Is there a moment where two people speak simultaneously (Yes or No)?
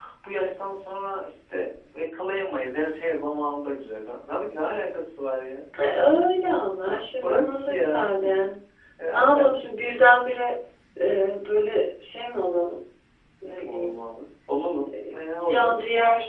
Yes